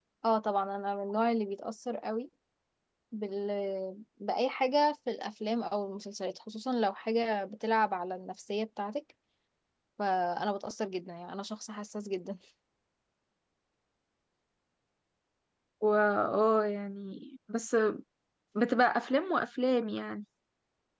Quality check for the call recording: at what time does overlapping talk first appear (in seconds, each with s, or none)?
none